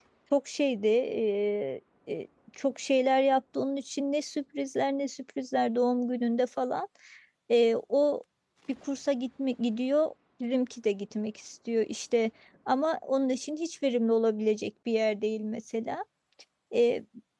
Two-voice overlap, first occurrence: none

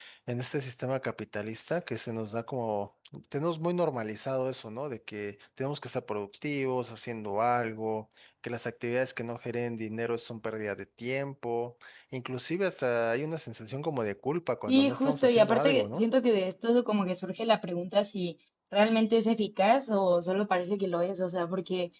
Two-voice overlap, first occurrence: 14.7 s

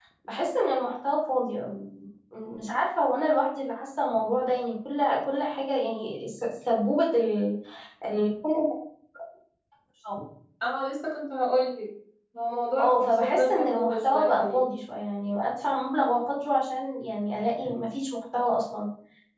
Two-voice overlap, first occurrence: 12.8 s

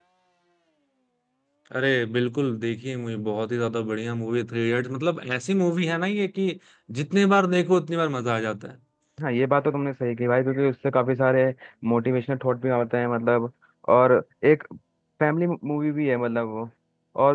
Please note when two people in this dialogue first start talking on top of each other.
none

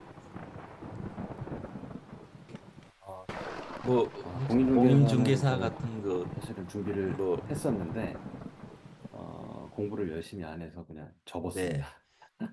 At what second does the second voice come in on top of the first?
4.2 s

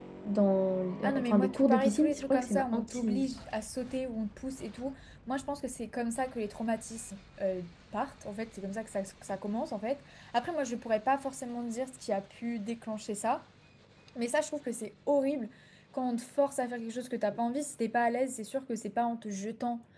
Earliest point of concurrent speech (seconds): 1.0 s

